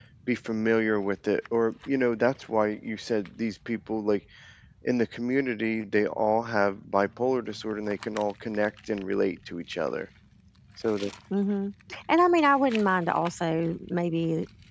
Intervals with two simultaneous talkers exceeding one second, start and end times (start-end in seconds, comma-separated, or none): none